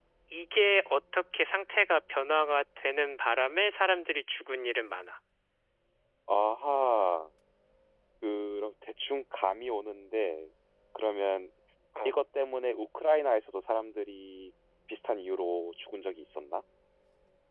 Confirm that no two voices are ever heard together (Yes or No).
Yes